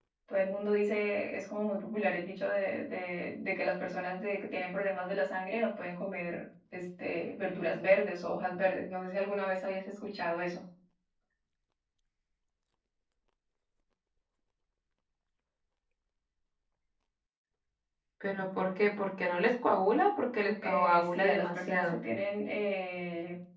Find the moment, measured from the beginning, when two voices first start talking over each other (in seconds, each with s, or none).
20.6 s